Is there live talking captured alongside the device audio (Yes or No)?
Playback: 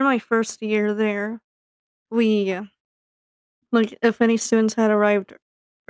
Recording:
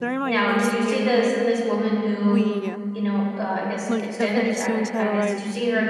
Yes